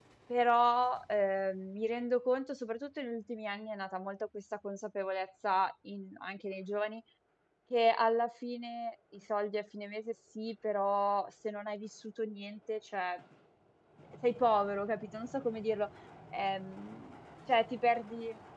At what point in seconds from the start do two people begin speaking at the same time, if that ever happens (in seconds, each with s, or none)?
none